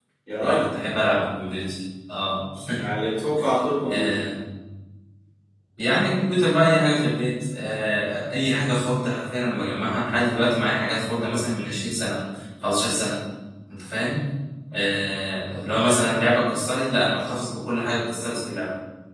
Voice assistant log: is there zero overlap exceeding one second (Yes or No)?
Yes